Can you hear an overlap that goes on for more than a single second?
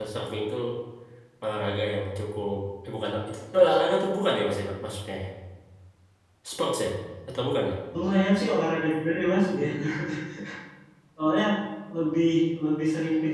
No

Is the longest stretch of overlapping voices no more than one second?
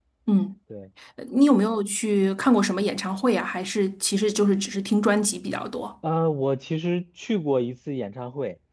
Yes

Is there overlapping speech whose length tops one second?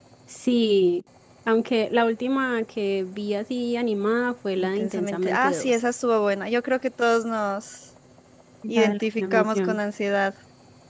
Yes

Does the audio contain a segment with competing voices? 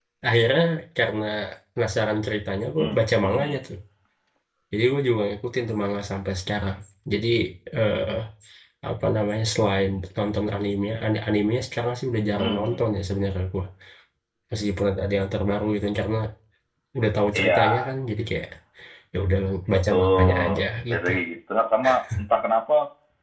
Yes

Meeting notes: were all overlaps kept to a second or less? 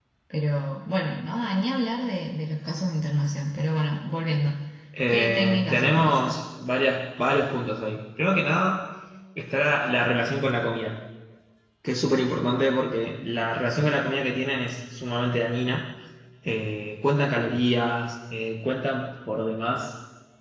No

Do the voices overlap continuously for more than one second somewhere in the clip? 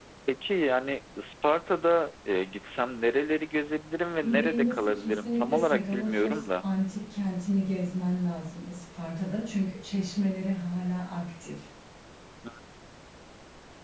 Yes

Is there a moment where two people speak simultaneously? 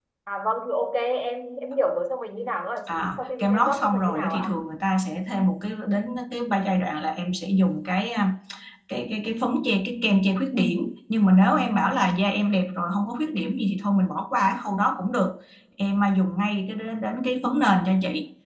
Yes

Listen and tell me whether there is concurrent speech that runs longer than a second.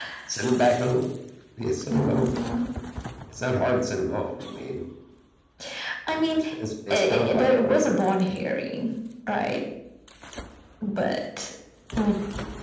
Yes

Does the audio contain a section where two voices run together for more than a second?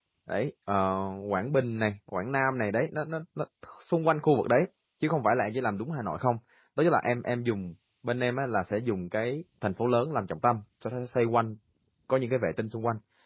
No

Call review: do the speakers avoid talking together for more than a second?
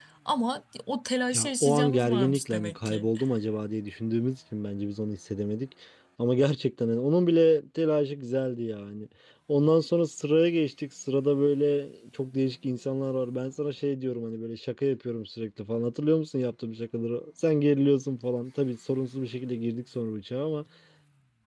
No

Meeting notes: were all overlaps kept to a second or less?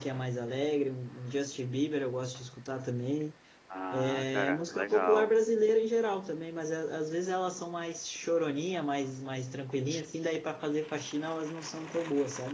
No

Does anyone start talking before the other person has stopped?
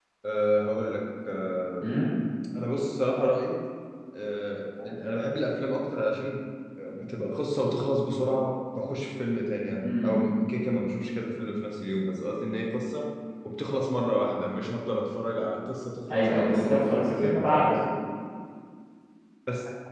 Yes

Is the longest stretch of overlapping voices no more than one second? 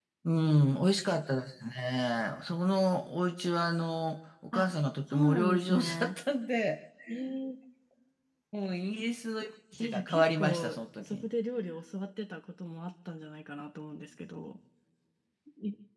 No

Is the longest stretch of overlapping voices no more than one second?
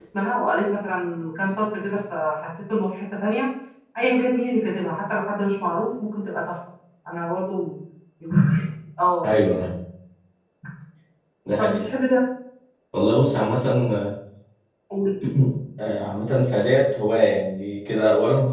Yes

